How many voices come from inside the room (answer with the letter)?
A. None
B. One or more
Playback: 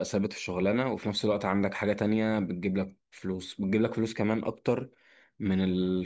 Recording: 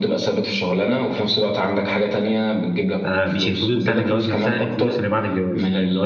B